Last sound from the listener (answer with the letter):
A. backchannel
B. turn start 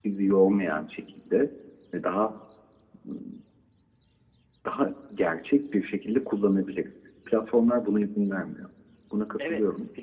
B